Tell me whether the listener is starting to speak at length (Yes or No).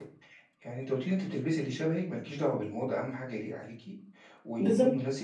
No